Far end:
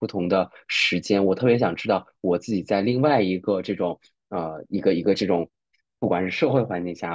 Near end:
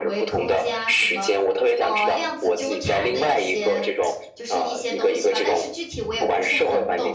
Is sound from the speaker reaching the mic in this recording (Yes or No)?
Yes